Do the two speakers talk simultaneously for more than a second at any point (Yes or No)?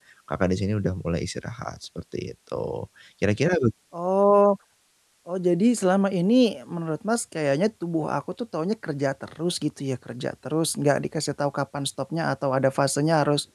No